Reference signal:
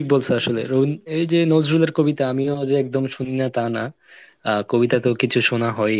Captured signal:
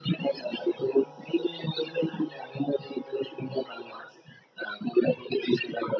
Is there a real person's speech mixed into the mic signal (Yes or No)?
No